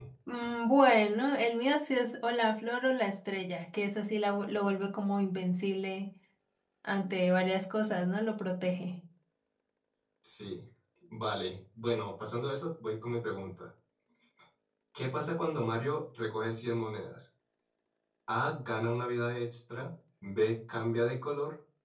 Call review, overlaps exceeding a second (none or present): none